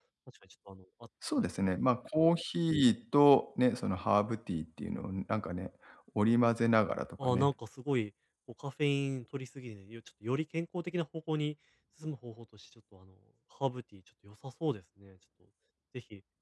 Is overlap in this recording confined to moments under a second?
Yes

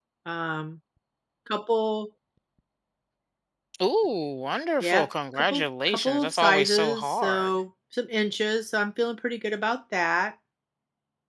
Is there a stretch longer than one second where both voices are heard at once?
Yes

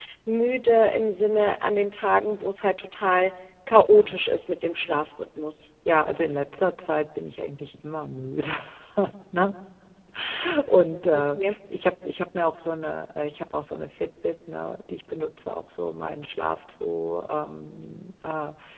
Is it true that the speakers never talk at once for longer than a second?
Yes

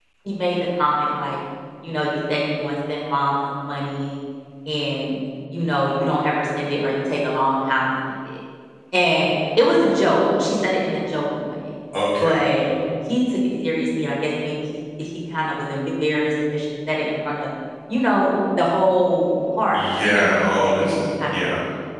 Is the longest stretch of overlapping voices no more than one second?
No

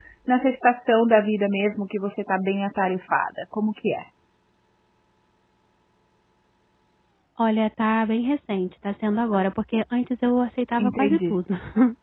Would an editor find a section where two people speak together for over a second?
No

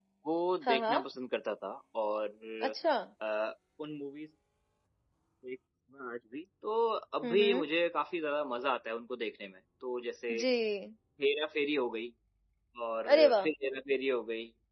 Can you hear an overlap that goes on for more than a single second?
No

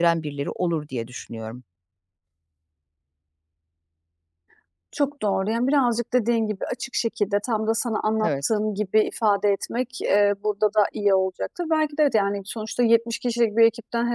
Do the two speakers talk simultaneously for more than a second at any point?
No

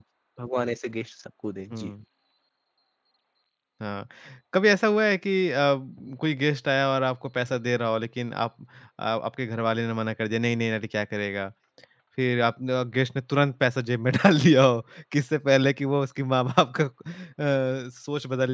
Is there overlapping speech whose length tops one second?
No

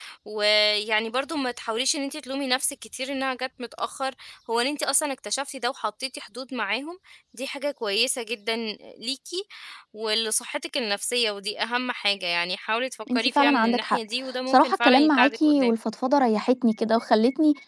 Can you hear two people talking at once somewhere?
Yes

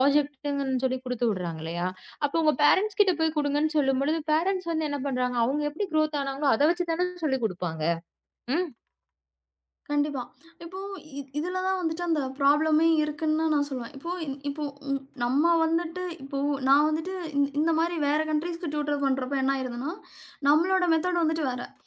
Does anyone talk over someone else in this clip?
No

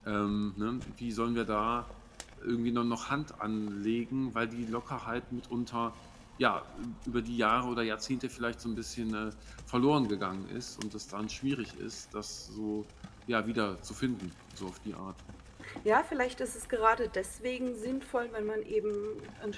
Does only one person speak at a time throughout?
Yes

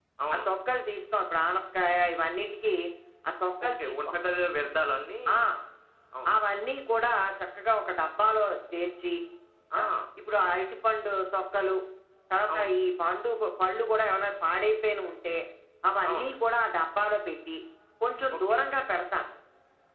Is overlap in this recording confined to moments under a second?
Yes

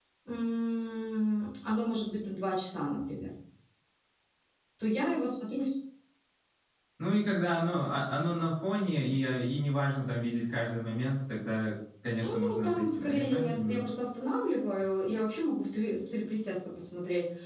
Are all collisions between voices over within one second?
No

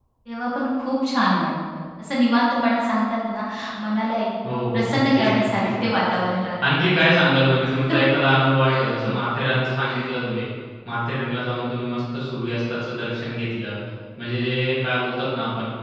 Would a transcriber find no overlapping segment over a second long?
No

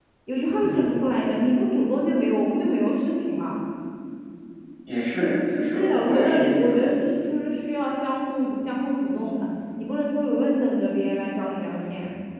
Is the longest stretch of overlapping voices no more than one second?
No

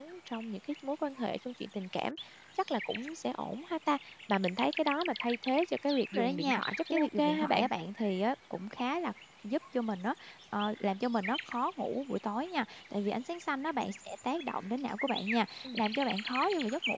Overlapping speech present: Yes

